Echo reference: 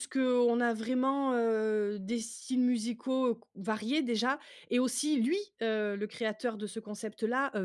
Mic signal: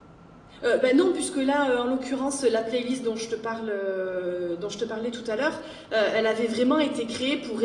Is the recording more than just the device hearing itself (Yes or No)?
Yes